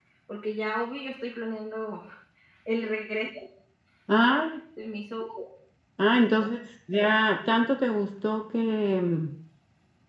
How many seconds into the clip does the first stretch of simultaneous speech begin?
none

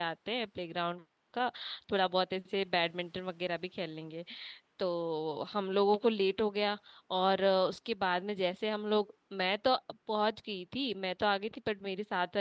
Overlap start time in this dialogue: none

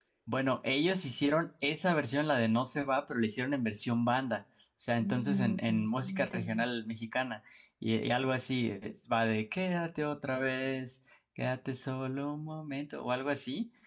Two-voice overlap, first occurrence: 5.0 s

